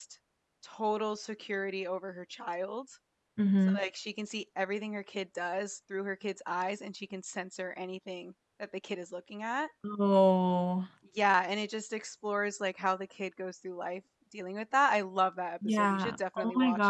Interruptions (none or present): present